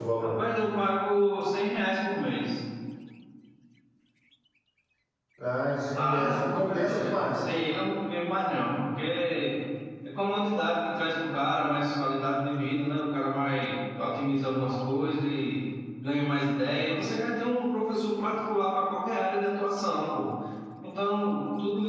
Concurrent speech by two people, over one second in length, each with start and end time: 6.0-7.3

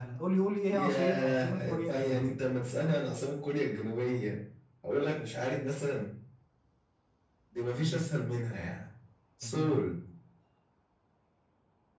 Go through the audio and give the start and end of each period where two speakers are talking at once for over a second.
0.7-2.4

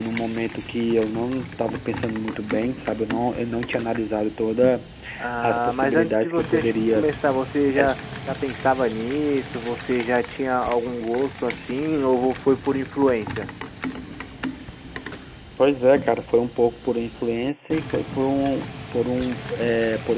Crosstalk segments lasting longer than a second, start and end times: 5.4-7.0

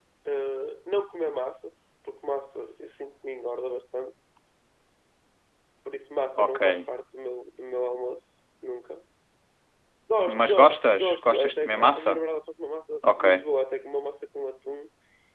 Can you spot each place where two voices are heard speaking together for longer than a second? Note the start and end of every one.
10.3-12.2

